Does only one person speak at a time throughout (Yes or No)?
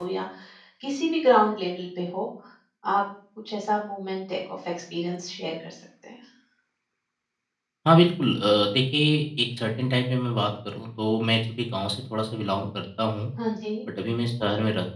Yes